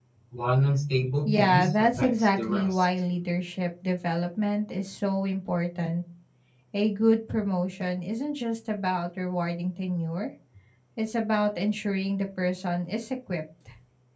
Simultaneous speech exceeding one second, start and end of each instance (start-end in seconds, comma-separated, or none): 1.2-2.8